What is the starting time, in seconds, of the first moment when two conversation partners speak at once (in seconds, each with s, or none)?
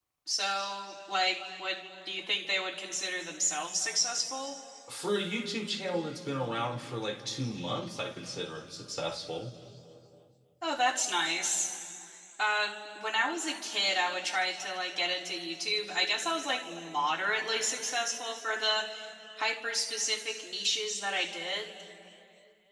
none